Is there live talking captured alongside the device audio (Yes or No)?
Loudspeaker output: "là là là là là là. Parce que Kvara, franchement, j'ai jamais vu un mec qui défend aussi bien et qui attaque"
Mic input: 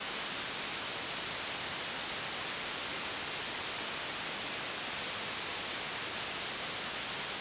No